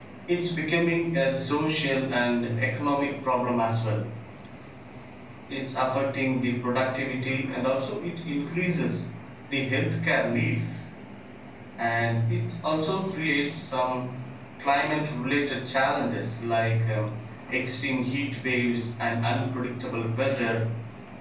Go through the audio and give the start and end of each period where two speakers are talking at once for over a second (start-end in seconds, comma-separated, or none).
none